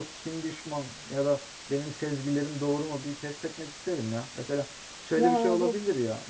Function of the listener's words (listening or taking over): listening